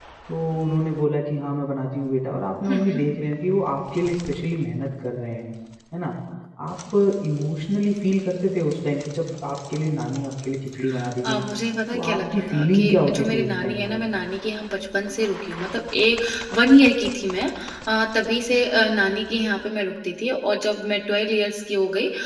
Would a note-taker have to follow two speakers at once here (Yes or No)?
Yes